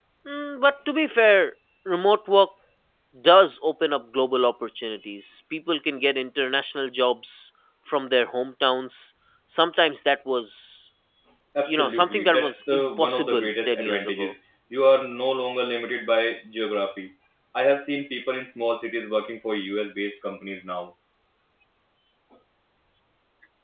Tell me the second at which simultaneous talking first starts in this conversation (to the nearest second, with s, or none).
12 s